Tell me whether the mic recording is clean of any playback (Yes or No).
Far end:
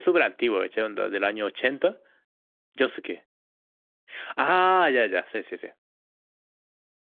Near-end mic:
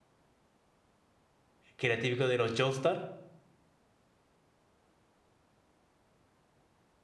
Yes